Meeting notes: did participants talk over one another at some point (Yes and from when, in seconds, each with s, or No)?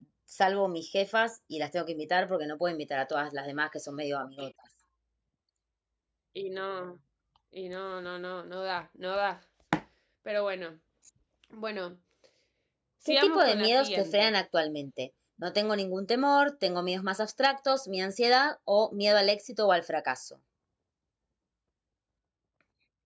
Yes, from 13.1 s